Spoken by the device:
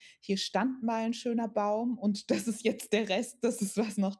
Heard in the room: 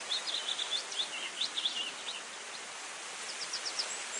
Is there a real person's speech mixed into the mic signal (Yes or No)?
No